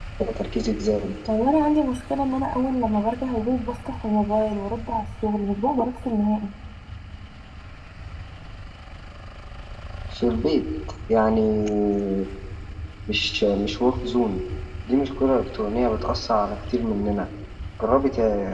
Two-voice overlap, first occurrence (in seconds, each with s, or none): none